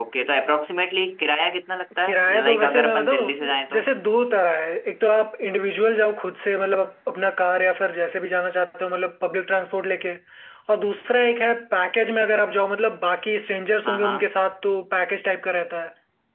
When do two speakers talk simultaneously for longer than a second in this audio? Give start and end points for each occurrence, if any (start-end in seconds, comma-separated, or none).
2.0-3.8